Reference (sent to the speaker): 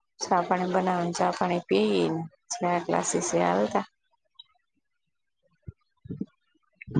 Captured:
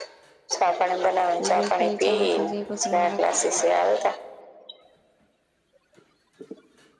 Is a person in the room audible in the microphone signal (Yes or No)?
Yes